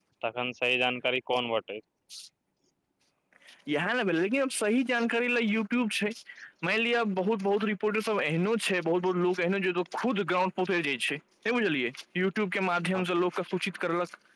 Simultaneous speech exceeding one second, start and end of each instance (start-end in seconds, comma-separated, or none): none